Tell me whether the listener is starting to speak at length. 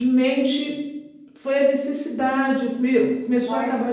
No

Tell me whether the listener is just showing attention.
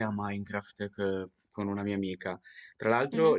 Yes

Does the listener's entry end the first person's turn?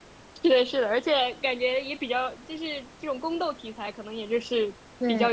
No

